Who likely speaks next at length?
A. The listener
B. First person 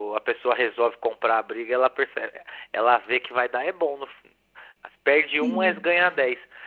B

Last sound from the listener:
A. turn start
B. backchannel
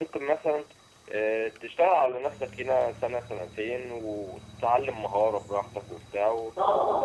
B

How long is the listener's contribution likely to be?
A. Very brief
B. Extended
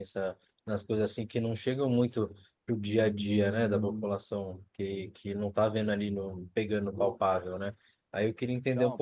A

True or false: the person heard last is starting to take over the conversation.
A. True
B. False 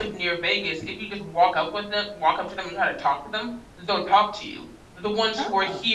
B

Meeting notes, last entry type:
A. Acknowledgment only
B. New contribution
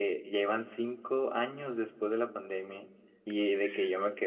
A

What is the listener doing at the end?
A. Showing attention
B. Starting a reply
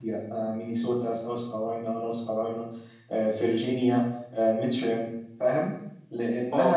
A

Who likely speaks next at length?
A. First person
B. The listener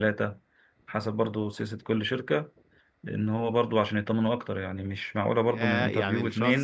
B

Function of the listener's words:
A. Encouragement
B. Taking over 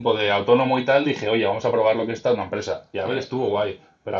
A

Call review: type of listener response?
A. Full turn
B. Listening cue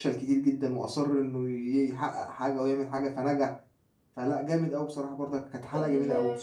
A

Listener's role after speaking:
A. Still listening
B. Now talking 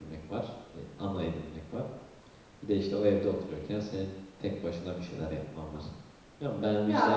A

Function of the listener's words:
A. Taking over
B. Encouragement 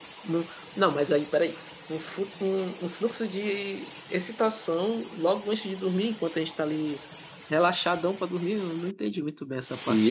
A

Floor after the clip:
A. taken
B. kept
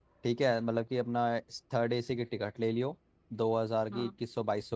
B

